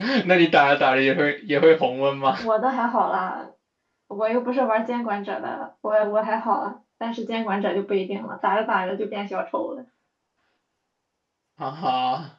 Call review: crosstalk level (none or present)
none